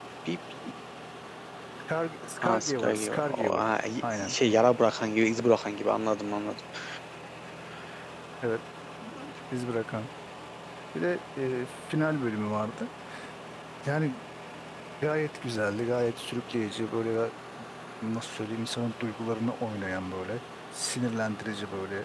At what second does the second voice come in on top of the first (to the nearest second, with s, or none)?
2 s